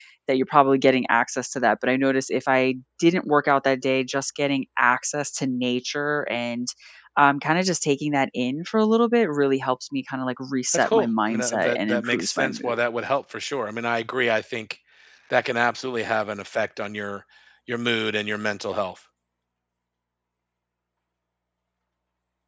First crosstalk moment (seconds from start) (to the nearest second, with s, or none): 11 s